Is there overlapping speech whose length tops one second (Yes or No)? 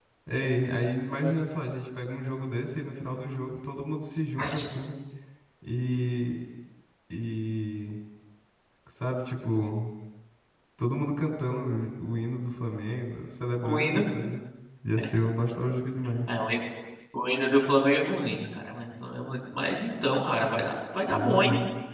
No